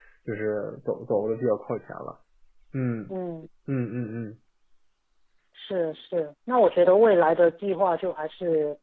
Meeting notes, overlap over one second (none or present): none